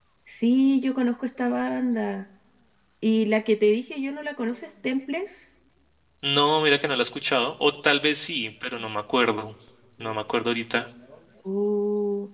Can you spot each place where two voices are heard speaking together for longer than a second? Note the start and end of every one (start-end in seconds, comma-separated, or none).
none